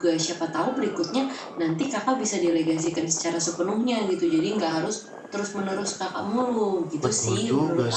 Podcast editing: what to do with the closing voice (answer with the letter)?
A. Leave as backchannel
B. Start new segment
B